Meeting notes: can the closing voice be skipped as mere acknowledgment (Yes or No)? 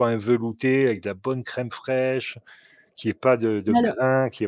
Yes